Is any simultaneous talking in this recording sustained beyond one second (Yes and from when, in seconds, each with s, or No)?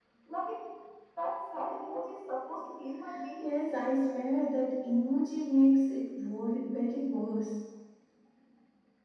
No